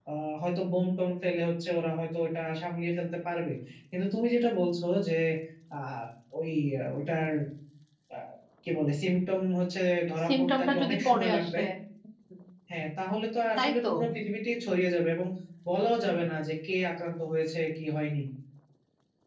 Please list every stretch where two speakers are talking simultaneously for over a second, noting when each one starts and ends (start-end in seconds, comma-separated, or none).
10.3-11.6